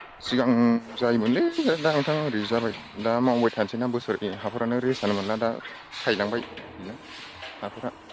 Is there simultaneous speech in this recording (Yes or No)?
No